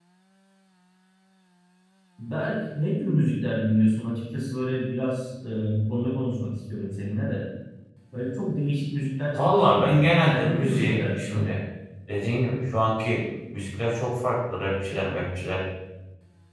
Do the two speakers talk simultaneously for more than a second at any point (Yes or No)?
Yes